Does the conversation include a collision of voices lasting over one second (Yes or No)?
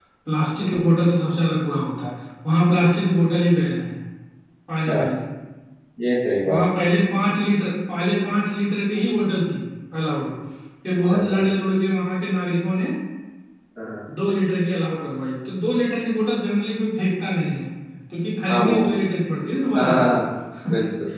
No